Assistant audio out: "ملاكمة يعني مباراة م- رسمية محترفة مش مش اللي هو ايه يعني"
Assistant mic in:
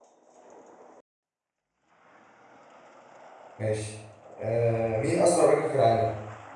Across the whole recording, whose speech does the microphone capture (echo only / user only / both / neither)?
user only